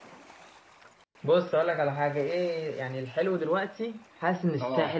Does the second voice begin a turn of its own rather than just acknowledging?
No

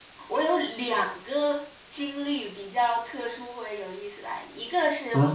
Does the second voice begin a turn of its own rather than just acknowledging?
No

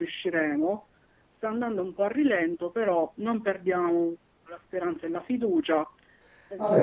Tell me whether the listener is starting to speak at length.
Yes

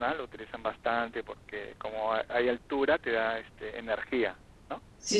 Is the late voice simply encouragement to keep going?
No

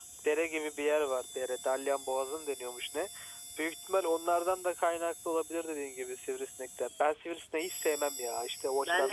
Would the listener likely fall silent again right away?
No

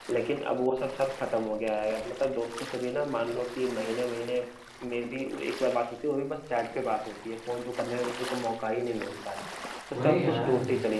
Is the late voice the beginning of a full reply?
No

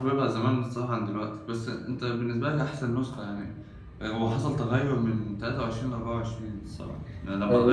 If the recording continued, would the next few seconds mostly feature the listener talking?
Yes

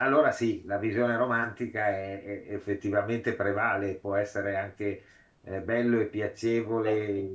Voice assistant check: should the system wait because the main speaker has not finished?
Yes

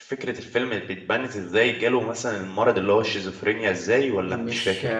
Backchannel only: No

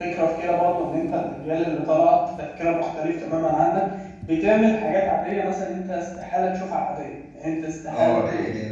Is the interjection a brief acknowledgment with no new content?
No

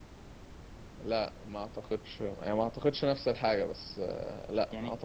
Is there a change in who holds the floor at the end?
Yes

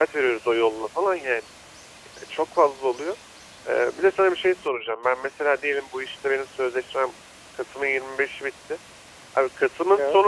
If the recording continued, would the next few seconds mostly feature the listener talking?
No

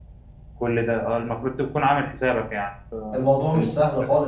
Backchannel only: No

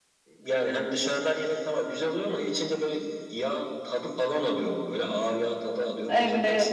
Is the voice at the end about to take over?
Yes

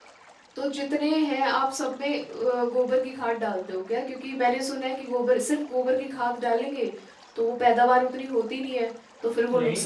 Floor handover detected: Yes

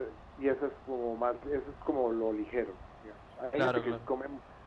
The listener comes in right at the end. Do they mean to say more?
No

